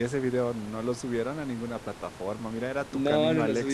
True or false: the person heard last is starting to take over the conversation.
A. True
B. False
A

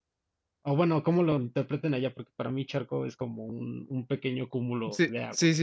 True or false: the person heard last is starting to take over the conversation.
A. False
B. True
B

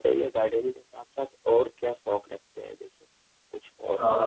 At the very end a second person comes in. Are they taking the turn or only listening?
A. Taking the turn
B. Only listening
A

